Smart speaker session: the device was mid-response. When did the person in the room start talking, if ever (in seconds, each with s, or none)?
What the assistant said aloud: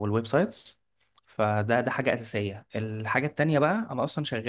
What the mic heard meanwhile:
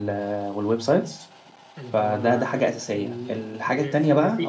1.8 s